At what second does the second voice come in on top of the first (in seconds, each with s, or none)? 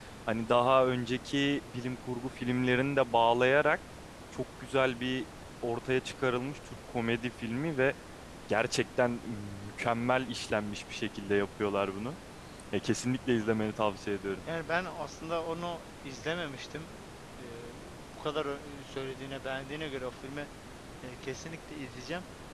none